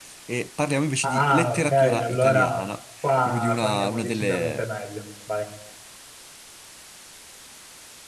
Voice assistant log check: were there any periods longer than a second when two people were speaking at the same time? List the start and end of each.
1.0-2.6, 3.2-4.7

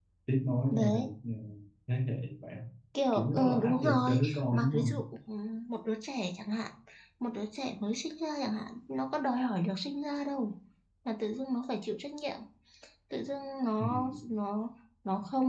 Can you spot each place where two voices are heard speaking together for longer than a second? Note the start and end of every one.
3.1-4.9

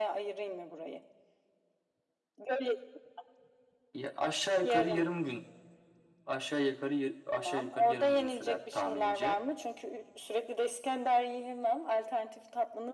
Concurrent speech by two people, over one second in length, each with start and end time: 7.3-9.4

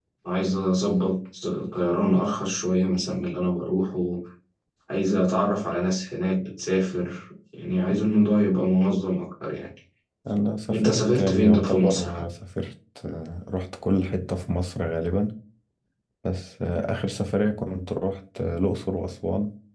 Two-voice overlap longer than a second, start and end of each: 10.7-12.2

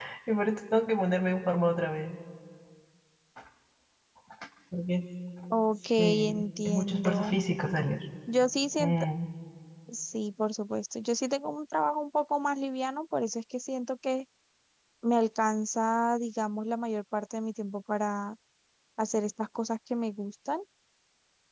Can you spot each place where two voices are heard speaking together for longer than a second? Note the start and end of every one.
6.0-7.4

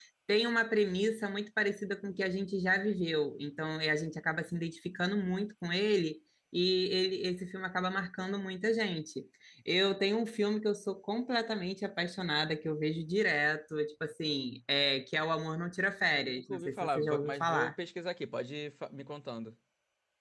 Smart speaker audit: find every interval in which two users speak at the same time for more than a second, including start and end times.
16.1-17.7

